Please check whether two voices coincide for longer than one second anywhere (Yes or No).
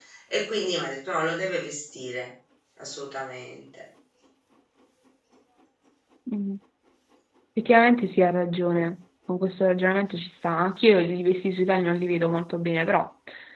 No